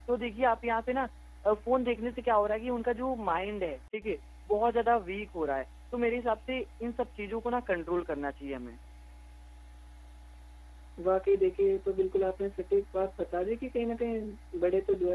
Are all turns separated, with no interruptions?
Yes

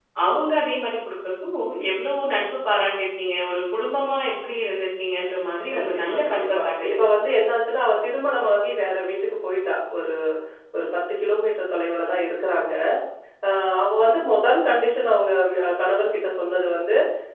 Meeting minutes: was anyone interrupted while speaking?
Yes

